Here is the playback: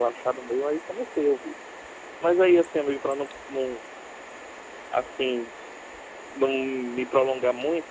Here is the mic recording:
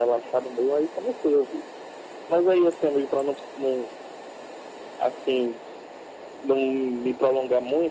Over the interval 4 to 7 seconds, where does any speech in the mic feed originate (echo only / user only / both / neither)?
echo only